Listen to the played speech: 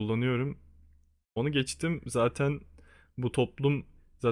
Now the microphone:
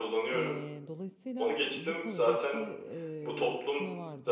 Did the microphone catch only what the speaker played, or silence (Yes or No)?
No